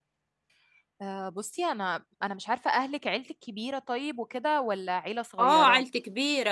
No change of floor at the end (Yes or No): No